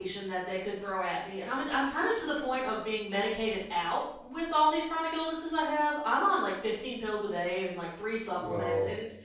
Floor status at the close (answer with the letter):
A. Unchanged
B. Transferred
A